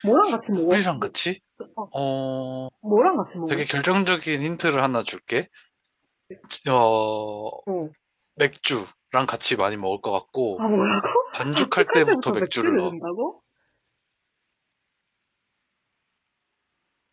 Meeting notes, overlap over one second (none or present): present